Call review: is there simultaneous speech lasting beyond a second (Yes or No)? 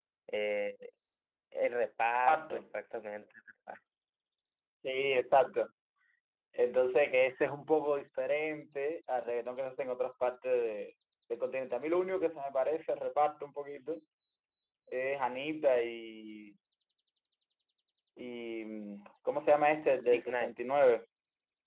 No